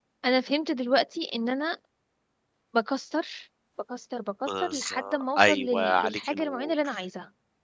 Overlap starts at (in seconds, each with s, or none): 4.5 s